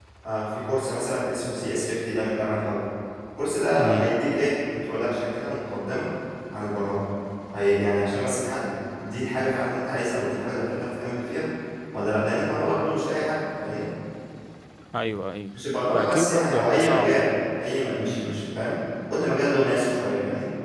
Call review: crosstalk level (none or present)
present